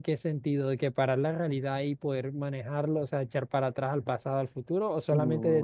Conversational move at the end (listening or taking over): taking over